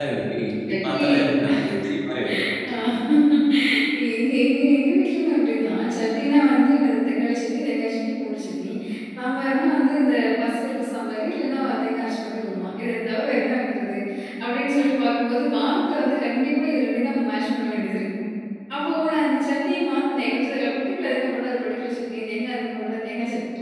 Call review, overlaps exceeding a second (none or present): none